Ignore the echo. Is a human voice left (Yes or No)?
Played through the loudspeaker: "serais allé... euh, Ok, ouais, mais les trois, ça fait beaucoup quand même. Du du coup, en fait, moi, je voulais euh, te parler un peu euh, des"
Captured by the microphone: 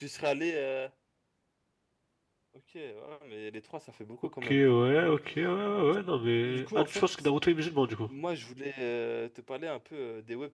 Yes